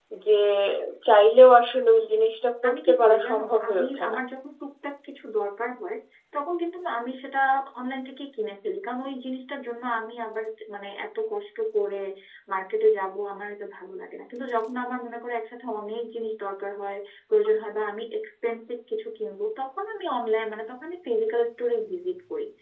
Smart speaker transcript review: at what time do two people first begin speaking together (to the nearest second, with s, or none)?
3 s